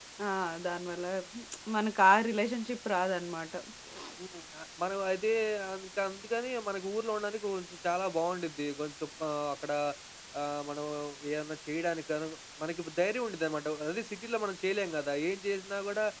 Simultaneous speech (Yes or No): No